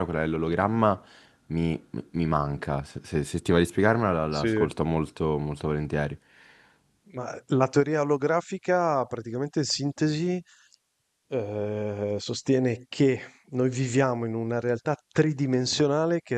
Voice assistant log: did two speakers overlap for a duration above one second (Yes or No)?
No